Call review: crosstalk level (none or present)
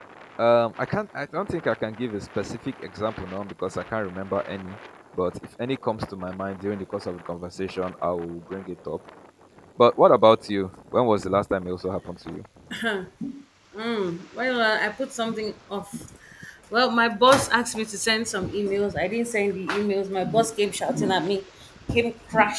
none